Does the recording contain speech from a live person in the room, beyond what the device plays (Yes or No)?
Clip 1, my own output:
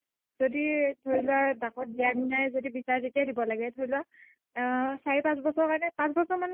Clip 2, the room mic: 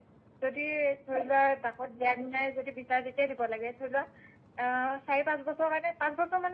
No